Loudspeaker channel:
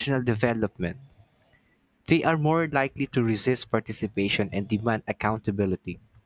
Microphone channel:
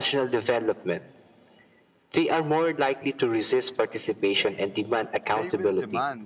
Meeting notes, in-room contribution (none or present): present